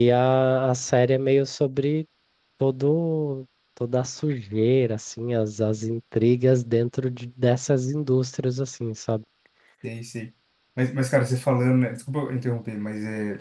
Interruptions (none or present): none